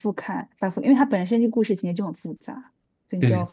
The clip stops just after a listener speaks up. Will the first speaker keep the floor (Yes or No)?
Yes